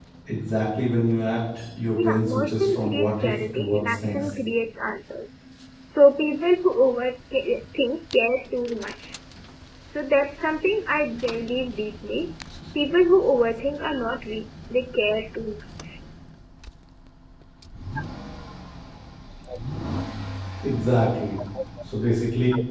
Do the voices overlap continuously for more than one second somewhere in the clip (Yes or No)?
Yes